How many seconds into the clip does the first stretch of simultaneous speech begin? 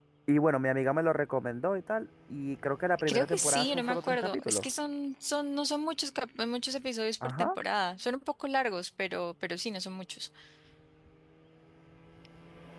3.1 s

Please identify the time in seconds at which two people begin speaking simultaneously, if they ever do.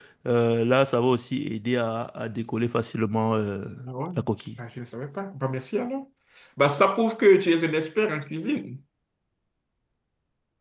none

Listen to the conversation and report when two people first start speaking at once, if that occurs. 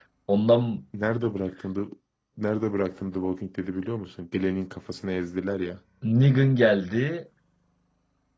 none

